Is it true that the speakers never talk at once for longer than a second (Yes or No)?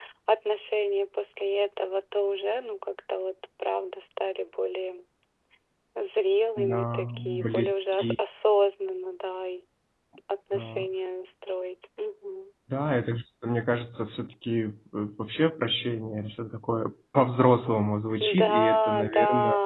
No